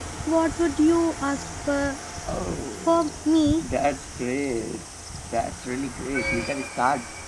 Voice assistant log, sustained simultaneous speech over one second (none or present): none